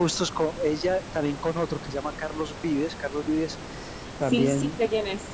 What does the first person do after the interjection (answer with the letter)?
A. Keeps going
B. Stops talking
B